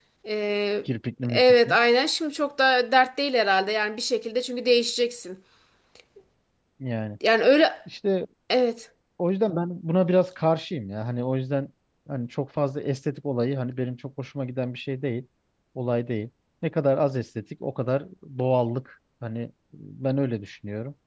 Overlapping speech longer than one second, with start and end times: none

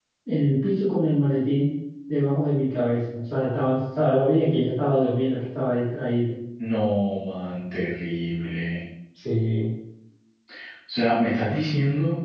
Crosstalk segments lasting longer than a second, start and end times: none

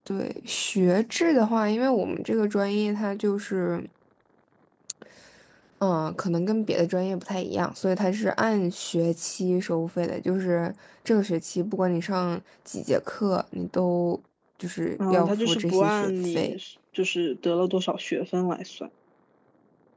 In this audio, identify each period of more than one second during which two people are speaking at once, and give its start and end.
15.1-16.5

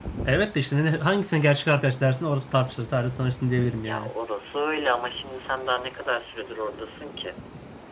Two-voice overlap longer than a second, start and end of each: none

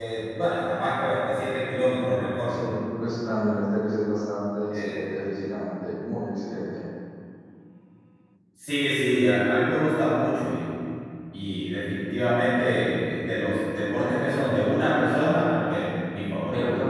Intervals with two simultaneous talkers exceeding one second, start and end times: none

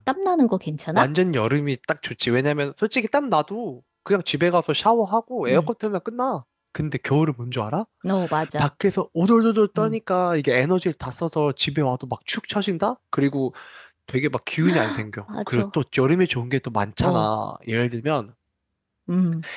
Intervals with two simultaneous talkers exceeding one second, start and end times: none

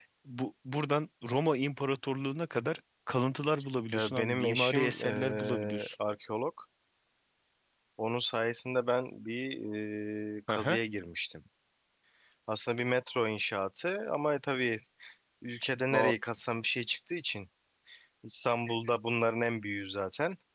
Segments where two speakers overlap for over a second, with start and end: 3.9-6.0

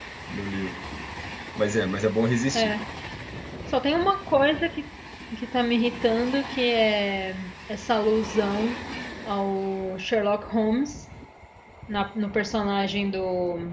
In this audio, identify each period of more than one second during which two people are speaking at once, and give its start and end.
none

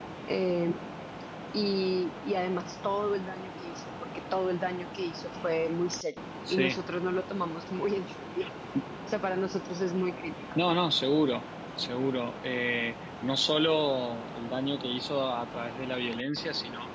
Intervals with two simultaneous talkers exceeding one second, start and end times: none

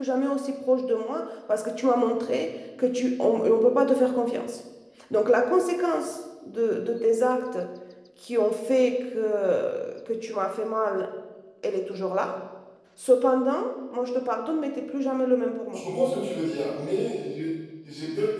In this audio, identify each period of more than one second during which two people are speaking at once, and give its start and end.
none

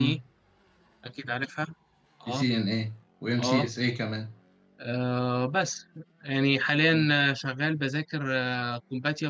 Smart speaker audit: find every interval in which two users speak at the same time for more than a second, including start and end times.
none

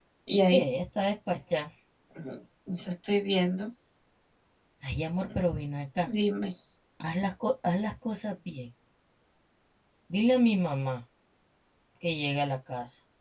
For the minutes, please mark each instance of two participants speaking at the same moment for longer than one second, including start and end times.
none

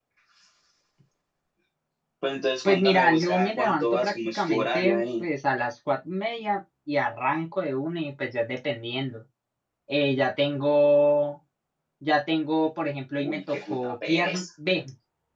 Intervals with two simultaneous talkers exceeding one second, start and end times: 2.6-5.3, 13.2-14.4

